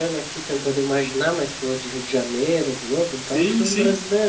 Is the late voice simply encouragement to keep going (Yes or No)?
No